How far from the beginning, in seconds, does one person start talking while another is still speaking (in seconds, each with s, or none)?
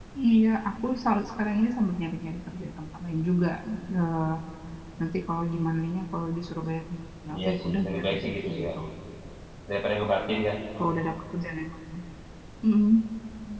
7.4 s